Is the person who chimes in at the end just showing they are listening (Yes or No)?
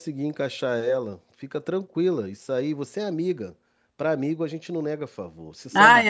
No